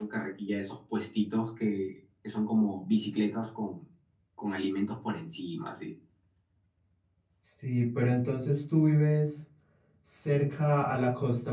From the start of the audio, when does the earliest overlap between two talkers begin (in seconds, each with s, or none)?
none